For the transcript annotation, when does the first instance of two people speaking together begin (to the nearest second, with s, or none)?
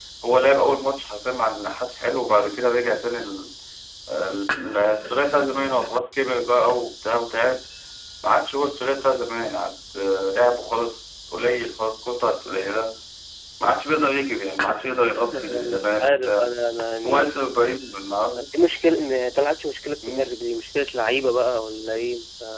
15 s